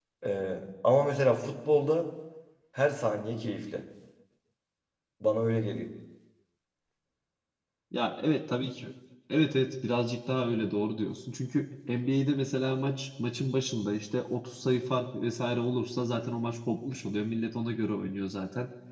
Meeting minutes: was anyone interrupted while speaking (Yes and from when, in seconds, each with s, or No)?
No